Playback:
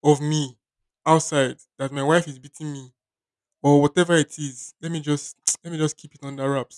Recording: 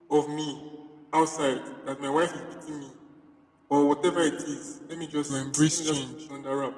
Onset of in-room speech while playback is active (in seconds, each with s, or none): 5.2 s